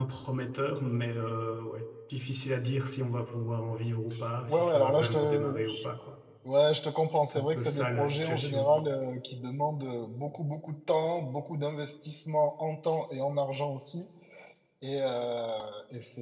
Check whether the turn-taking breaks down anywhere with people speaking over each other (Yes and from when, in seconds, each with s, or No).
Yes, from 4.5 s